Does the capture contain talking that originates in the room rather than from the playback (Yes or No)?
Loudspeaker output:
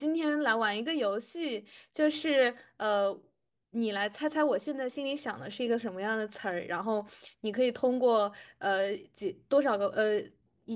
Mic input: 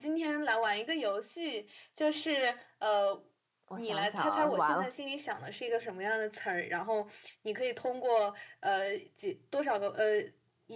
Yes